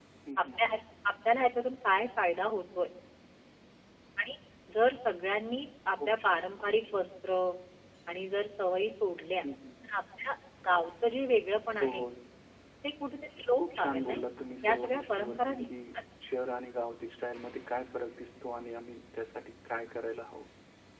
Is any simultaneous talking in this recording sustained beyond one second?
Yes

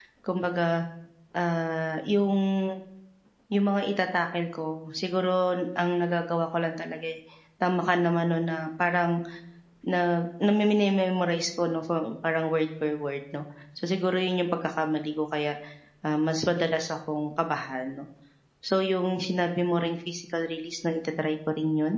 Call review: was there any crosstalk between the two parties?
No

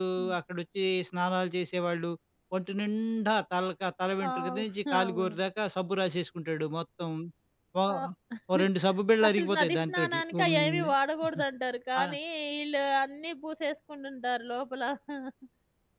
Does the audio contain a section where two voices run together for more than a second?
Yes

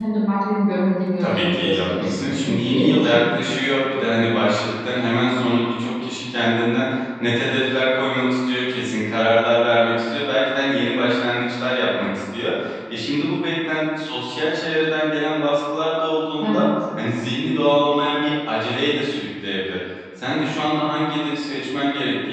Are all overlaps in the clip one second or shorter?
No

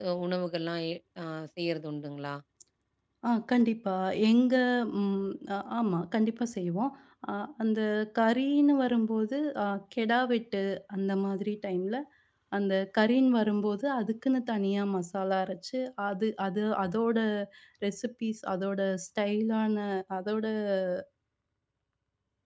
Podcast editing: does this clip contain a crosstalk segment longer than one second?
No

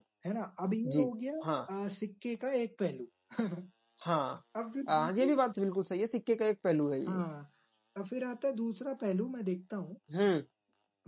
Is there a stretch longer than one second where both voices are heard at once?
No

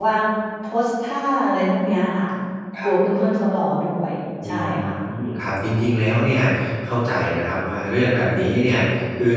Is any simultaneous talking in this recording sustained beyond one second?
No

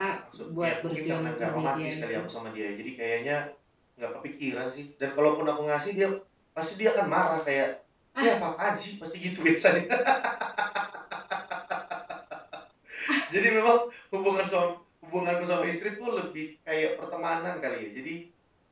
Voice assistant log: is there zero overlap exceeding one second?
No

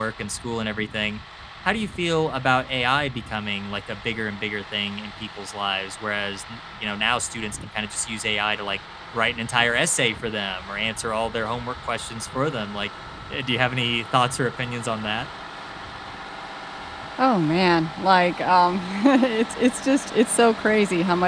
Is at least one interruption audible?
No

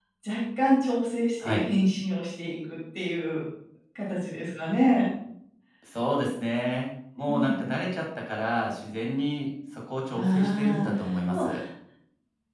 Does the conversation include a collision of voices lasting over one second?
Yes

